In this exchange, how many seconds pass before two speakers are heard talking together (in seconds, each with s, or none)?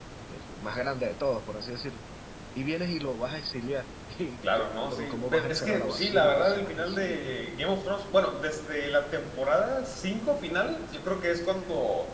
4.4 s